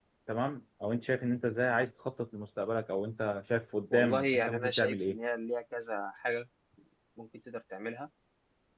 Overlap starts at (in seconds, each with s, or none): 3.9 s